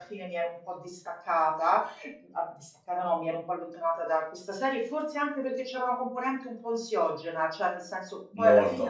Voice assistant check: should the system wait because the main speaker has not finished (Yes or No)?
Yes